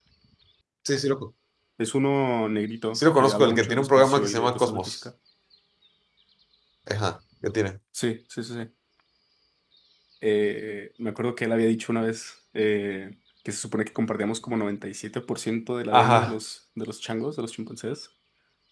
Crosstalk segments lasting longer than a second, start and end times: 2.9-5.0

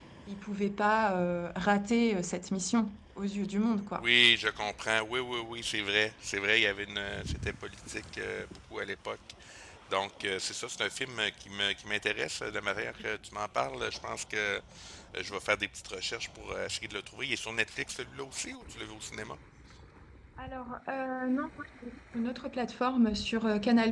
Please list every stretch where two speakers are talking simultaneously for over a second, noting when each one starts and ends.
none

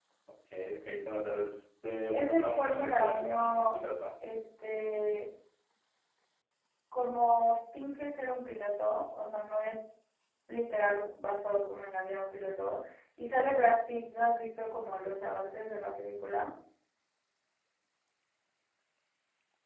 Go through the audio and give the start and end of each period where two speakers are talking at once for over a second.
2.1-3.6

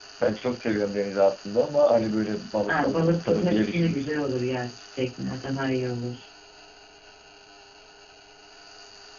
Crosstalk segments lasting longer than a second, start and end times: 2.7-4.3

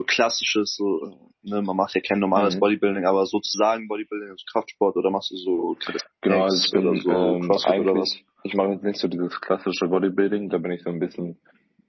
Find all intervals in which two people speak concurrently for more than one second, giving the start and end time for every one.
6.3-8.1

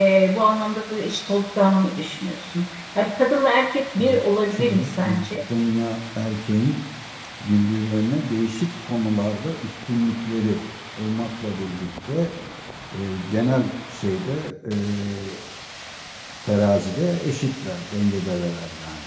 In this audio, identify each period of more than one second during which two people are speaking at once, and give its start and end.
4.0-5.4

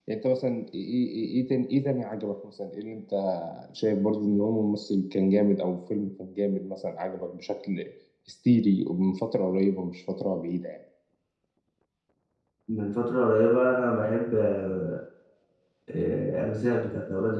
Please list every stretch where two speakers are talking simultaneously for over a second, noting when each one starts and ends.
none

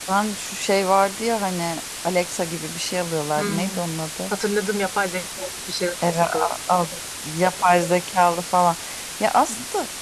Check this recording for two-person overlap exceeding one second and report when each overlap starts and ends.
none

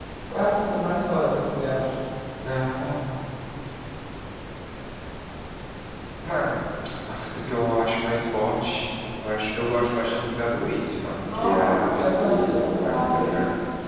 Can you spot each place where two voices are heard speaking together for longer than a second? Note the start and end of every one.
11.3-13.3

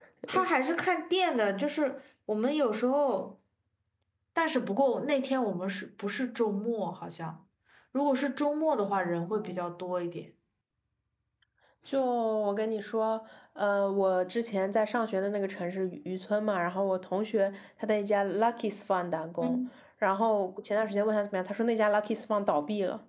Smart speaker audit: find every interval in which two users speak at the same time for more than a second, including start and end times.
none

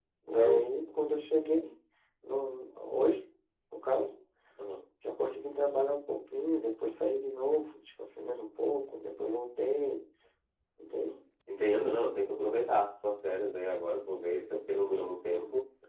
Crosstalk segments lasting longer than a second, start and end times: none

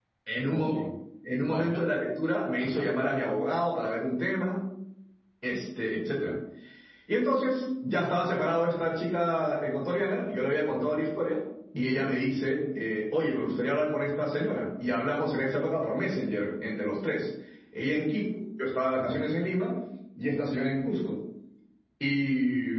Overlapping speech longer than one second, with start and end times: none

